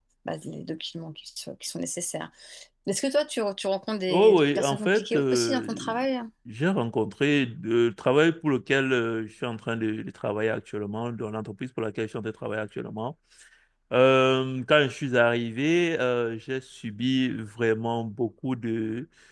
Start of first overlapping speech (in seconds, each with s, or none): 4.1 s